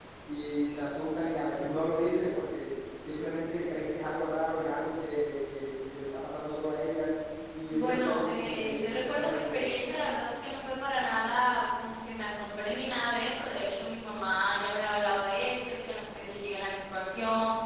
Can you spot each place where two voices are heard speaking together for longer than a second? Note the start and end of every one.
7.7-9.9

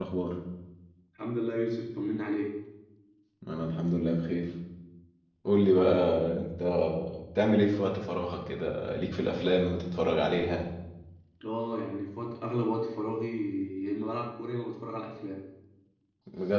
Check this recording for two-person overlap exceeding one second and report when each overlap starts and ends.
none

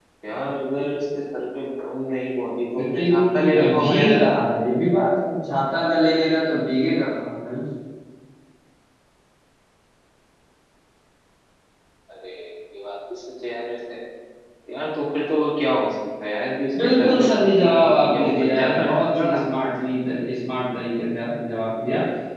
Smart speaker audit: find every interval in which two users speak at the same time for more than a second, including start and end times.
2.8-4.3, 16.8-19.4

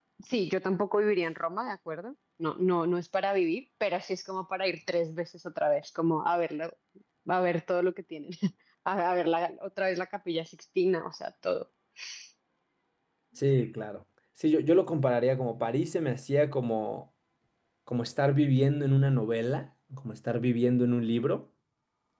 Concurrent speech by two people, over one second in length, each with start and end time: none

